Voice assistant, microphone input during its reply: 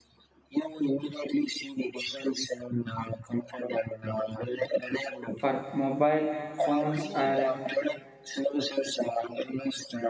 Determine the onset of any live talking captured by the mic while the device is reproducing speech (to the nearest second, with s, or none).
5 s